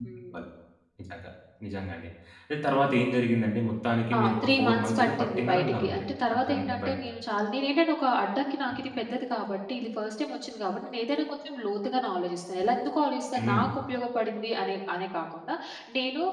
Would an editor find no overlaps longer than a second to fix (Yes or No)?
No